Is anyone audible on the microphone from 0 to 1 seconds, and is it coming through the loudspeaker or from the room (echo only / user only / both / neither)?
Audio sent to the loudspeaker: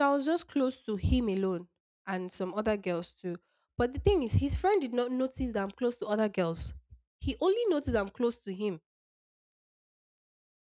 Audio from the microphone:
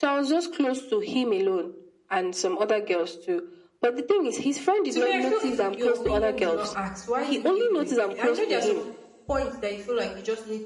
echo only